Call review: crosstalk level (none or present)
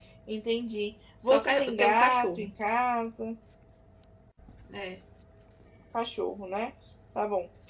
present